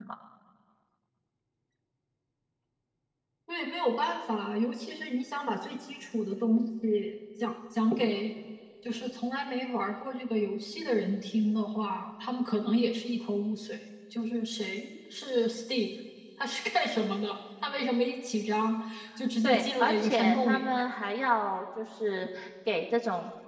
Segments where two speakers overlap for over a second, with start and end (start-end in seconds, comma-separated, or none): 19.4-20.7